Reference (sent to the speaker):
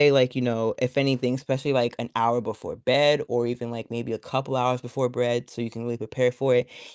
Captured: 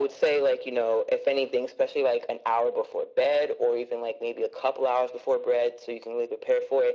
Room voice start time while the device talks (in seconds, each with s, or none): none